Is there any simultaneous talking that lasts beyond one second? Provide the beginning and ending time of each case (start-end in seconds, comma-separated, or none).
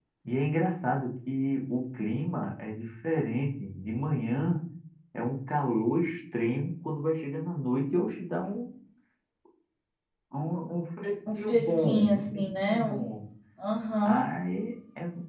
11.4-13.1